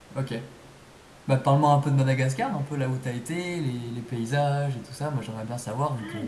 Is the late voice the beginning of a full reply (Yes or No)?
Yes